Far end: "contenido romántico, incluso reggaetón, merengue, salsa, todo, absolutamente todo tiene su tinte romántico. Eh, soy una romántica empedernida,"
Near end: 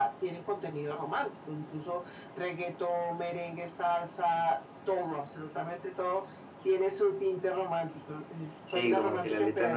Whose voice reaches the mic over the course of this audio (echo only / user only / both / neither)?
both